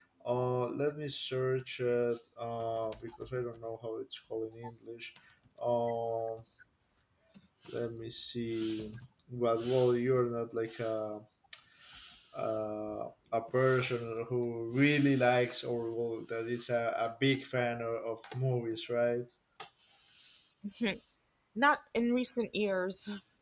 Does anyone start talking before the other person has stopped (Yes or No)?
No